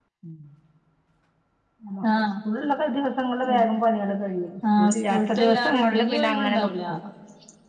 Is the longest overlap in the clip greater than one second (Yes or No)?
Yes